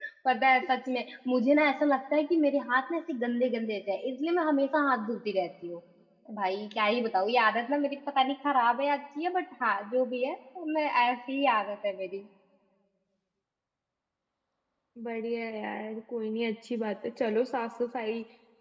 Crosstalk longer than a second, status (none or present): none